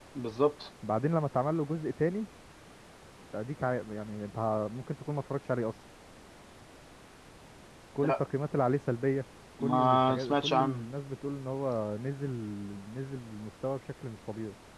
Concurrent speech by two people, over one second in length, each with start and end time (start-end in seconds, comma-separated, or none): 9.6-10.8